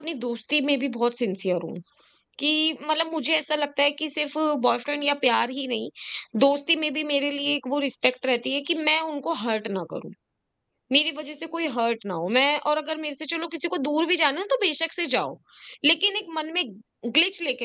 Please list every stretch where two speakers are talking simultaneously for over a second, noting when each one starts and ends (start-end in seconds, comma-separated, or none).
none